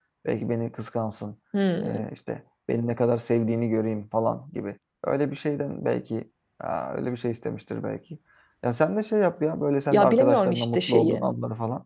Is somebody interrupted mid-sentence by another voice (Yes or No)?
Yes